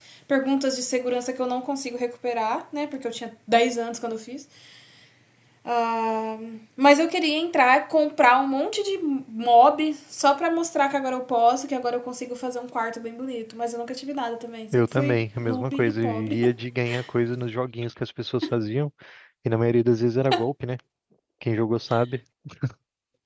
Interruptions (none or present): present